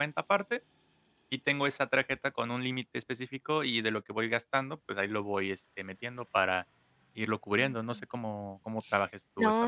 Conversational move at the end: taking over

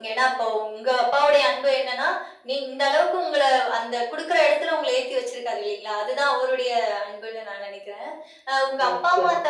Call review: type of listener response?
listening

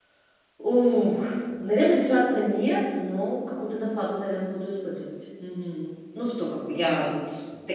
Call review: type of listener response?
listening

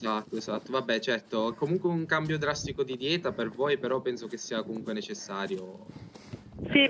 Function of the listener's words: taking over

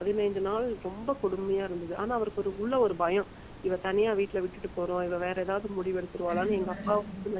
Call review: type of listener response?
listening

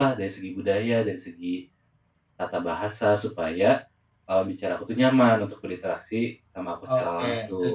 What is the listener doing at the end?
taking over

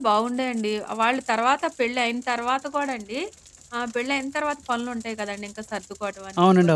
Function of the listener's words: listening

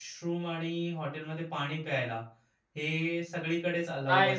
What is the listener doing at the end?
taking over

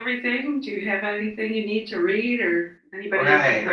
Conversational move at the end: taking over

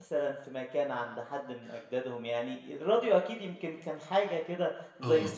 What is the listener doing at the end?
taking over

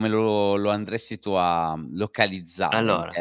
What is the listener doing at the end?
listening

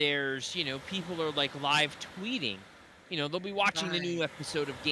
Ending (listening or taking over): listening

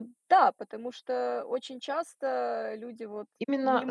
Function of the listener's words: taking over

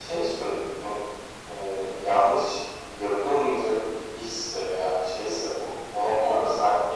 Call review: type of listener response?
listening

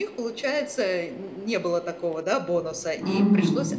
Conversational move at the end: listening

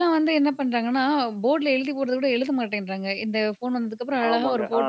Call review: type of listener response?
taking over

